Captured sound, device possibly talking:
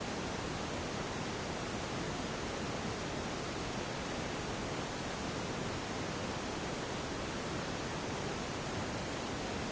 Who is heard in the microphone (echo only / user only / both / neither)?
neither